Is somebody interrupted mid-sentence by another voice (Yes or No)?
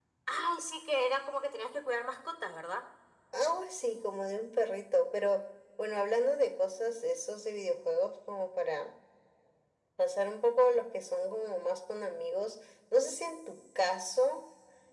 No